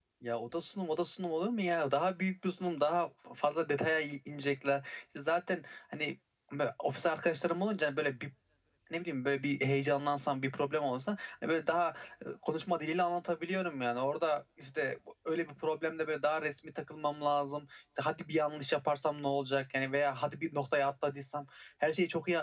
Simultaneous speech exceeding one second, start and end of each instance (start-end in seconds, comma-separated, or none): none